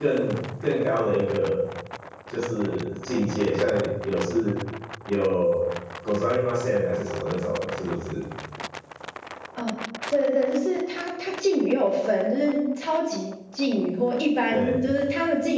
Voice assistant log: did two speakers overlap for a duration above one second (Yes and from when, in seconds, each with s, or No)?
No